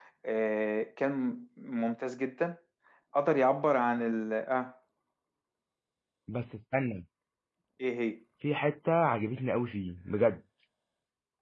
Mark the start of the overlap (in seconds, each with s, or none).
none